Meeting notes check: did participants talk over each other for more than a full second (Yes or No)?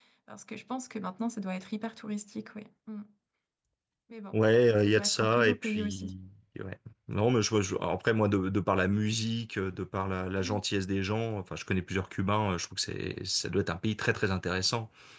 Yes